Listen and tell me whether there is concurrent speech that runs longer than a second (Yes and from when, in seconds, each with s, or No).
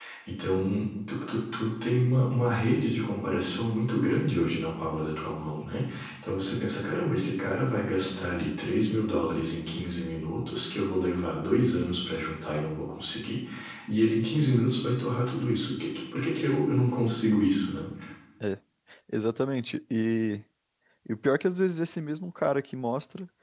No